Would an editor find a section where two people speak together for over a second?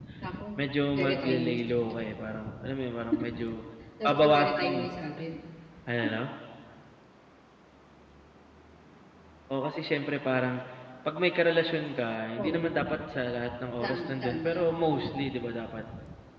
Yes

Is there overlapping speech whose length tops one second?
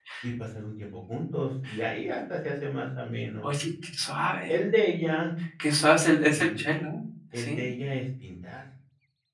No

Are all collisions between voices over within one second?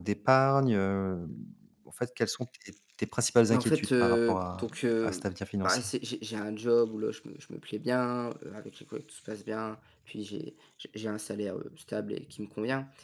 No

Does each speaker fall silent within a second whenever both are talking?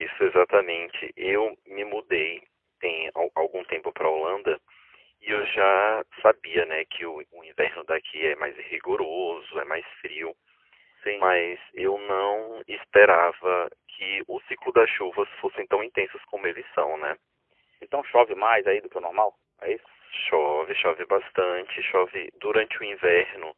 Yes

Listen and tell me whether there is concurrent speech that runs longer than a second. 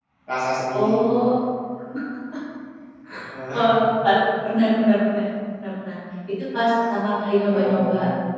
No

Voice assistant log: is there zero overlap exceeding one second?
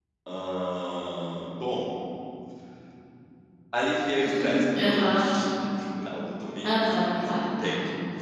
No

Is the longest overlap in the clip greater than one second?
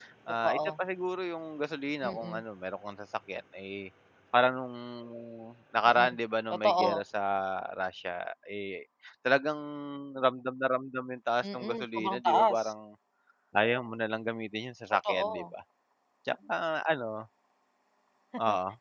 Yes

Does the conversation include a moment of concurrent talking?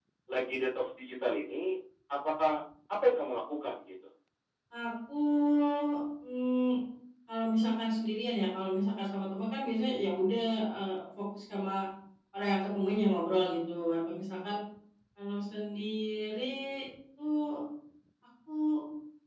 No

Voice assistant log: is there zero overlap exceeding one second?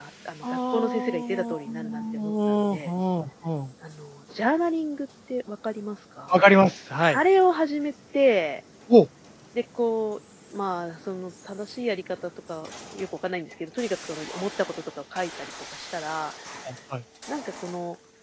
No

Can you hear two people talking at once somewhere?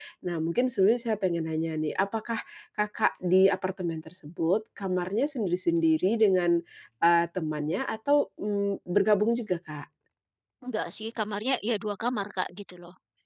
No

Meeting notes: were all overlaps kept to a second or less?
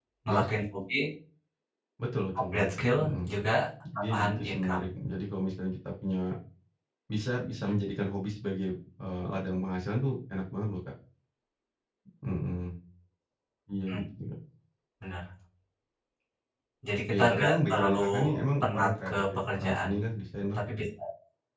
No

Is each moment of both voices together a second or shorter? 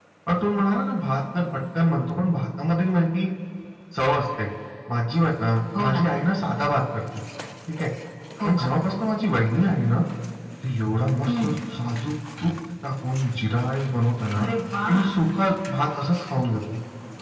Yes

